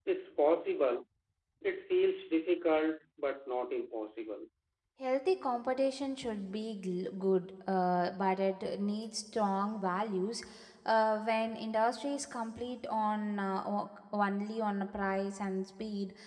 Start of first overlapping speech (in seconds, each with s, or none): none